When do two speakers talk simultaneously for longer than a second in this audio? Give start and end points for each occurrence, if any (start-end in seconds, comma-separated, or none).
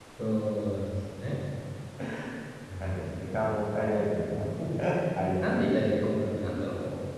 none